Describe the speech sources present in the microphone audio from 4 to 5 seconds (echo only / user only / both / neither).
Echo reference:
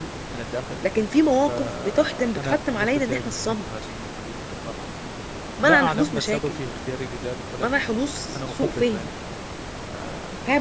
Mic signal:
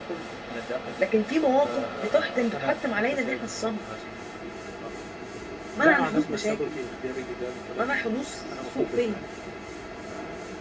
echo only